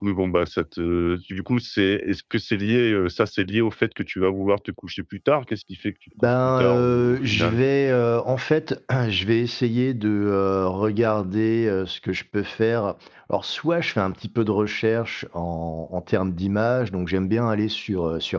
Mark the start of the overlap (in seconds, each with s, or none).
6.2 s